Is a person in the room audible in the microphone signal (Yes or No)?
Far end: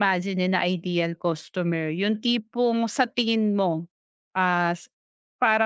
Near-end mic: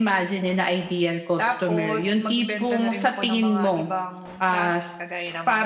Yes